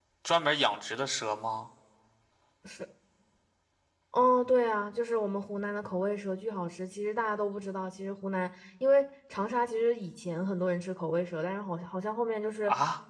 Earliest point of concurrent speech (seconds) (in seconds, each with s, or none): none